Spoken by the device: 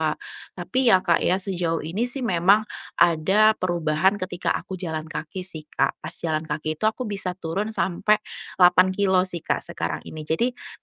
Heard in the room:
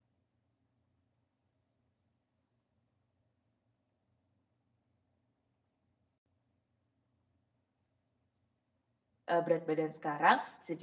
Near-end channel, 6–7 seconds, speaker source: neither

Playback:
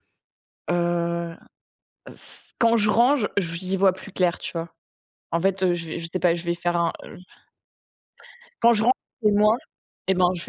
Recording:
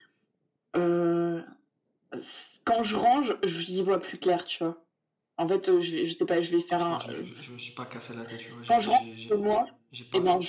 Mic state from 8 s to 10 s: both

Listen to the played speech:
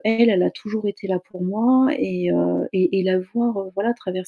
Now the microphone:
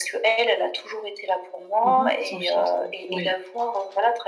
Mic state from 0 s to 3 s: both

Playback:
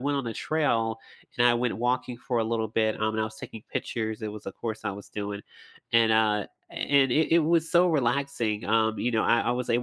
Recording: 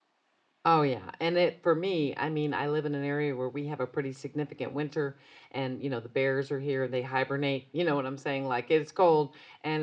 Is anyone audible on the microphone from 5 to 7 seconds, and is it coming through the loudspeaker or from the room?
user only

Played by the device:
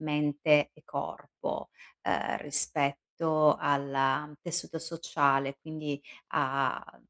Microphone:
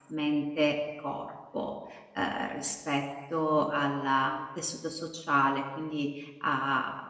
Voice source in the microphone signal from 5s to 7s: echo only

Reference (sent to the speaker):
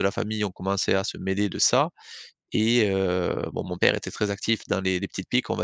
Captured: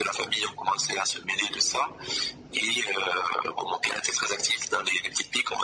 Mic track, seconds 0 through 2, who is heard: echo only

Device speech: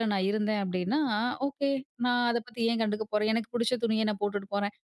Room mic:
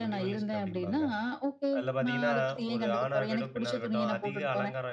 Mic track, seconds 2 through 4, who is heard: both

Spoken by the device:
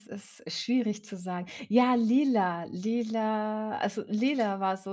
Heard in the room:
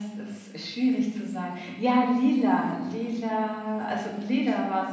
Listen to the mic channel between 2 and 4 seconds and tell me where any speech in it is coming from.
echo only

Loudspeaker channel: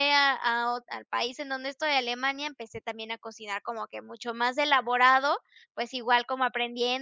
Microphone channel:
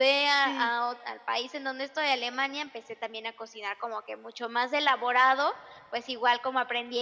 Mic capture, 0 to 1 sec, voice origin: both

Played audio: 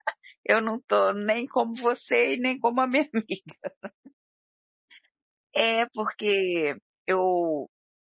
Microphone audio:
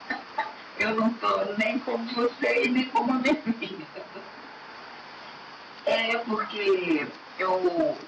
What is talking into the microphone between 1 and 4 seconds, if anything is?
echo only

